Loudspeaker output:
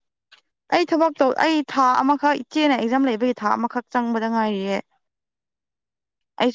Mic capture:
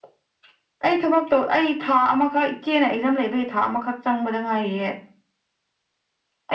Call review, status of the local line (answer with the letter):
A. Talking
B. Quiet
B